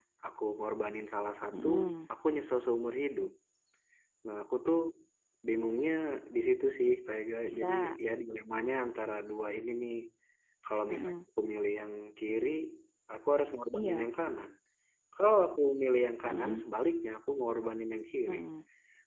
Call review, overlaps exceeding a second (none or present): none